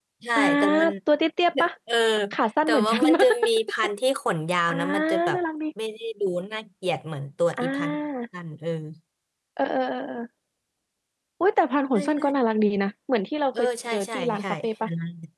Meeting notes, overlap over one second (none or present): present